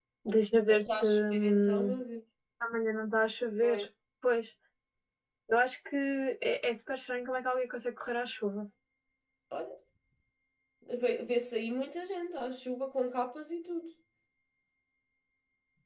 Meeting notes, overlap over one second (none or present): present